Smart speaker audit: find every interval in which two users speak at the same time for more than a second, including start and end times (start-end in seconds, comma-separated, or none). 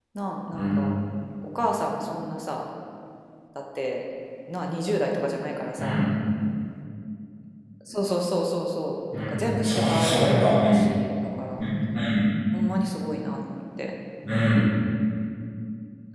9.1-10.7